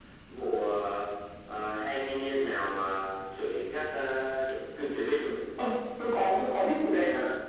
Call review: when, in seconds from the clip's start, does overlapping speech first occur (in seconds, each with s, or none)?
none